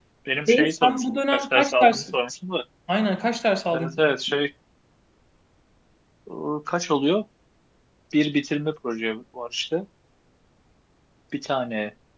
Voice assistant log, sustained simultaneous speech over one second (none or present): present